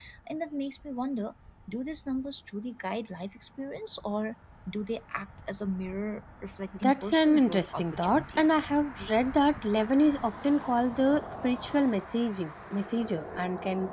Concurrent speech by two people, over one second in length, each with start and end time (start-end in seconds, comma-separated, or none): 6.8-8.6